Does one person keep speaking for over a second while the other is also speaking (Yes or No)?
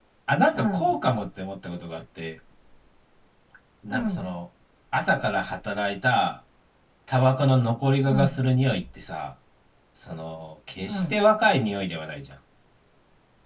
No